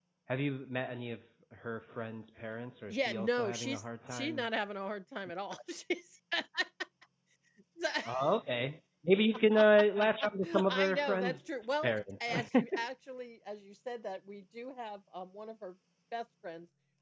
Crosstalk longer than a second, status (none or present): present